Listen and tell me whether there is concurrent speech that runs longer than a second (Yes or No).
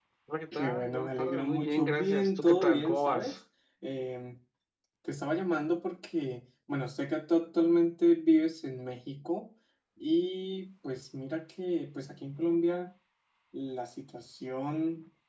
Yes